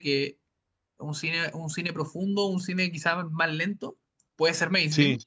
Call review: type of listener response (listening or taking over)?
listening